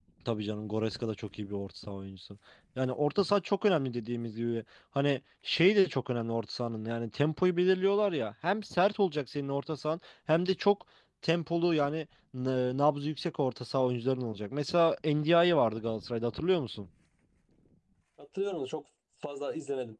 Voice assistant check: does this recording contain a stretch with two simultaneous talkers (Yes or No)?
No